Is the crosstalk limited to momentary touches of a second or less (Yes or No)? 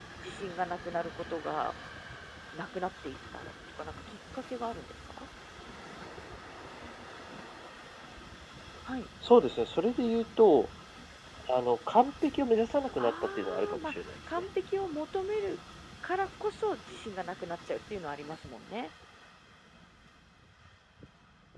No